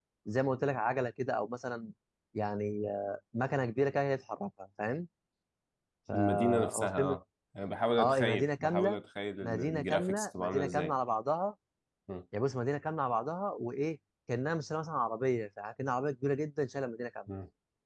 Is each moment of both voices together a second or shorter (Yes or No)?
No